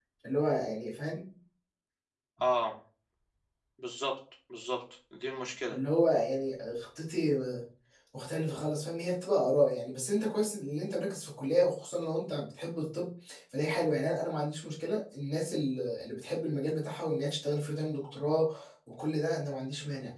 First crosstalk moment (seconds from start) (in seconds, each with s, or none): none